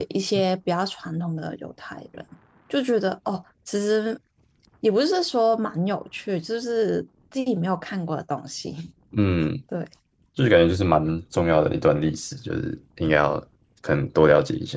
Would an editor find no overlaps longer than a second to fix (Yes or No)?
Yes